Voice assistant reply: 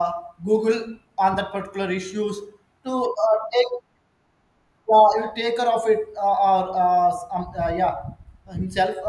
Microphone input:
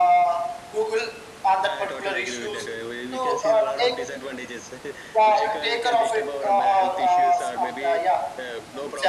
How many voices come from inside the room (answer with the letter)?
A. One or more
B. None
A